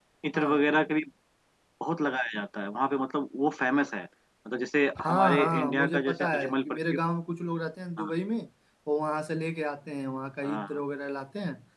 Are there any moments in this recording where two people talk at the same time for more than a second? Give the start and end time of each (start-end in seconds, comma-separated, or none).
5.0-6.8